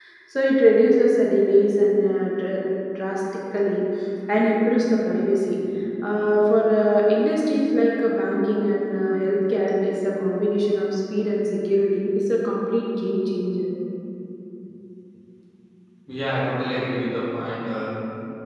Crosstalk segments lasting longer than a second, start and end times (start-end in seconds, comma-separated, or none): none